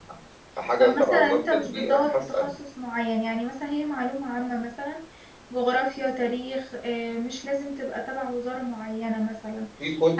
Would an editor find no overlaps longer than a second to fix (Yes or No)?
No